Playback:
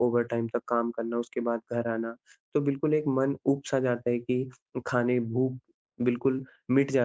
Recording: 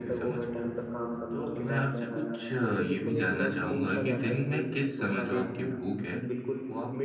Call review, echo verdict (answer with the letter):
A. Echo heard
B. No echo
A